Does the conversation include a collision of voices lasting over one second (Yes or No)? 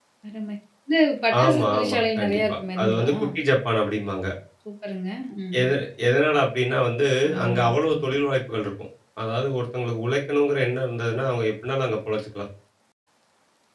Yes